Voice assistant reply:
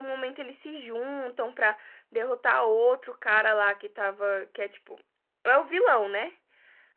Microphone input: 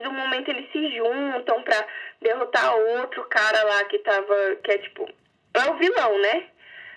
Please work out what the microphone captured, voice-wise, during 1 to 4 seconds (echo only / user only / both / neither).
echo only